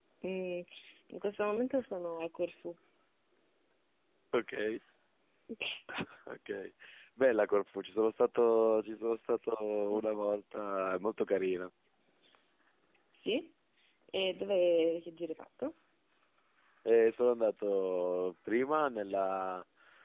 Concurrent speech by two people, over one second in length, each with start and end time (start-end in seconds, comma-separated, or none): none